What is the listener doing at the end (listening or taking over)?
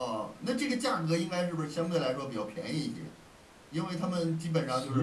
listening